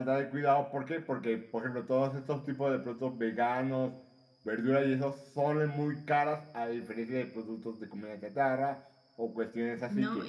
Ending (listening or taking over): taking over